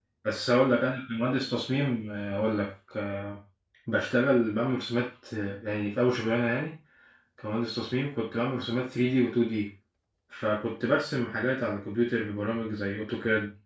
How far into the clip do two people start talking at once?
none

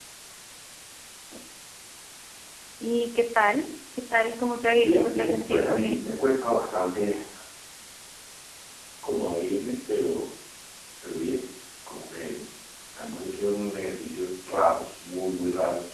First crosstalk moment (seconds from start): 5 s

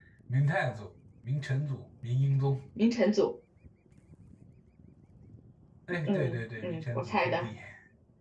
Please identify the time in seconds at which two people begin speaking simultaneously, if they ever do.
6 s

